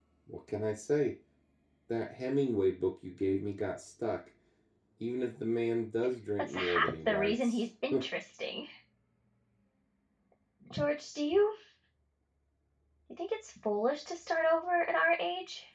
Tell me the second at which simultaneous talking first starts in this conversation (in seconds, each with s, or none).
6.4 s